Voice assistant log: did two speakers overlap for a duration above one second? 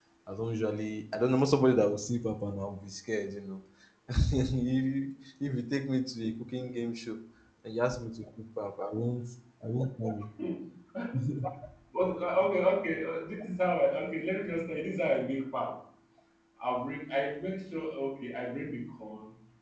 No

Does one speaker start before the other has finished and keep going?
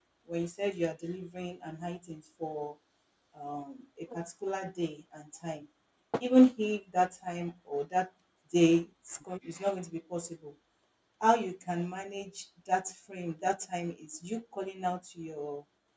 No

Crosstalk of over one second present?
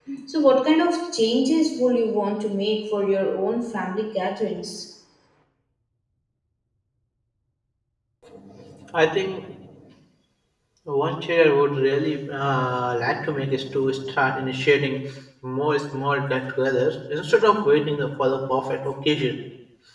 No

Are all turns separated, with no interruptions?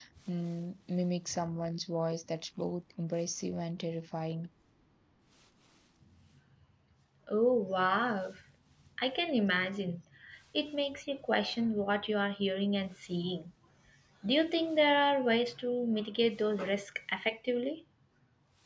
Yes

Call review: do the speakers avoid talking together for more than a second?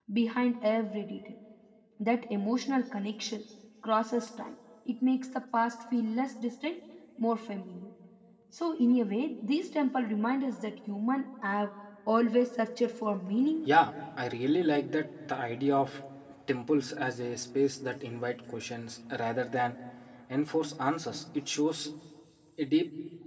Yes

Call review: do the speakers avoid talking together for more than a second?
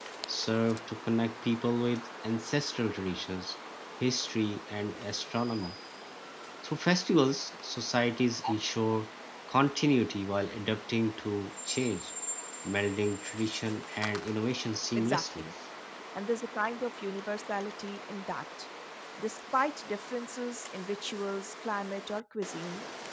Yes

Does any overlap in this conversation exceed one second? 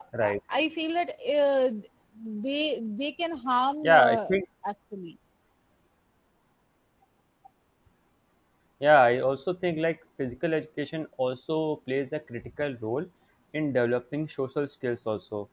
No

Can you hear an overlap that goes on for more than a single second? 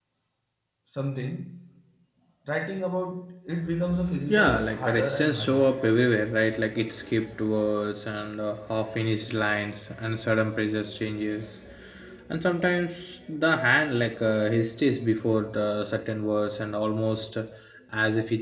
Yes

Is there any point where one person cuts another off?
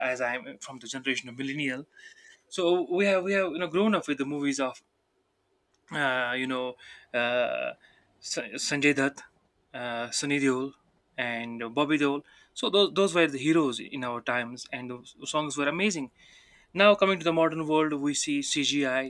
No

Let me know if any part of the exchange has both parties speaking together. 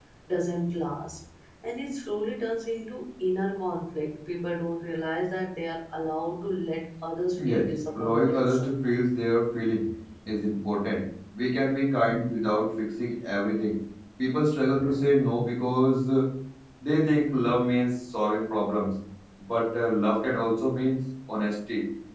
Yes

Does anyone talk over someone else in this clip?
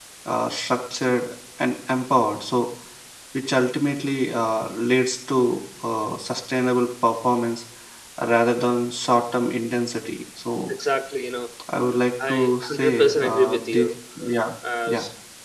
Yes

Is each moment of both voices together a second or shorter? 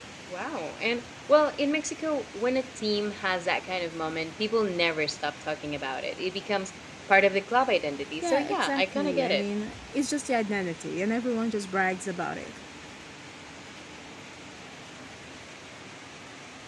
No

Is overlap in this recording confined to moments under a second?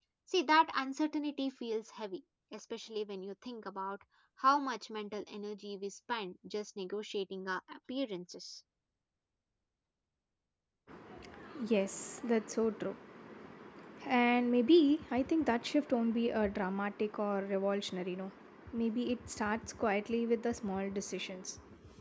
Yes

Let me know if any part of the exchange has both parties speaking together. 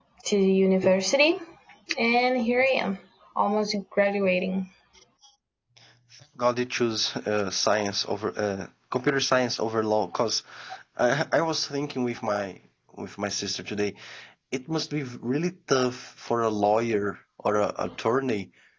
No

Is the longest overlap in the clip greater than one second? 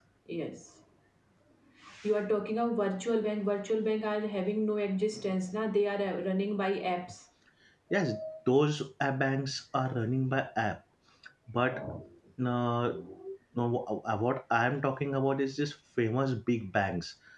No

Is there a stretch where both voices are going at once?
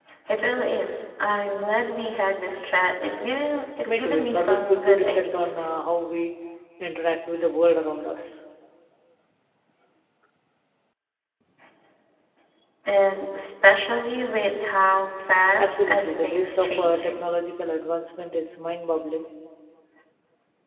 Yes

